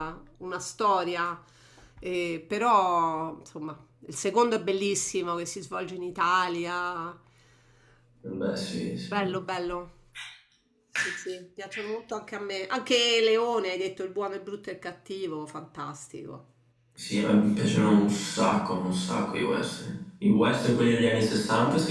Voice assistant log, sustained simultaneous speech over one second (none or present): none